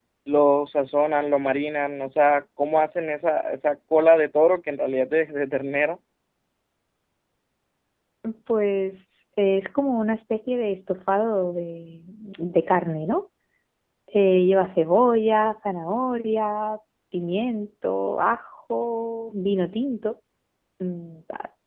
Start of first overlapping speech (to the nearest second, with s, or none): none